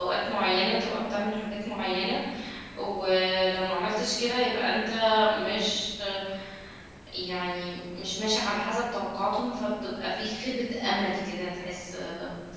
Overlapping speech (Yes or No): No